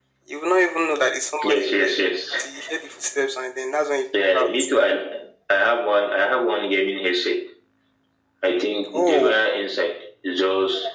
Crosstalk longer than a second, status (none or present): none